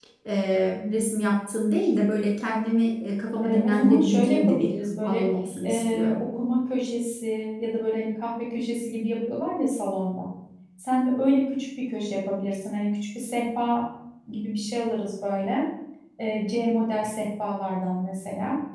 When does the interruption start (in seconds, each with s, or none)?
3.4 s